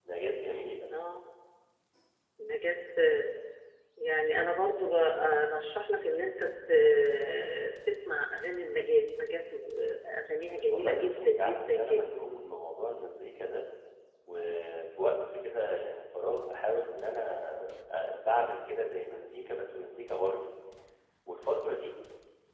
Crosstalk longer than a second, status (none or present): present